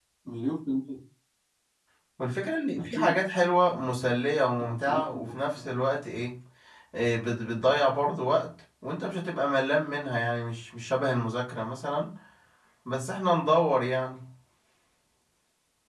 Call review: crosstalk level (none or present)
present